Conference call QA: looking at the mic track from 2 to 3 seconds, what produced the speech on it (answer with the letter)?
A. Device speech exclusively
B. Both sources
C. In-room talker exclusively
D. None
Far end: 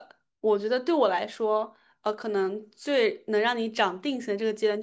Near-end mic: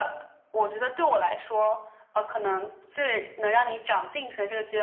A